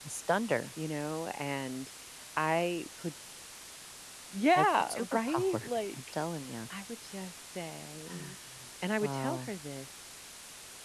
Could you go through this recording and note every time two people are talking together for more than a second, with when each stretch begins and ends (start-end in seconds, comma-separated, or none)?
4.6-6.0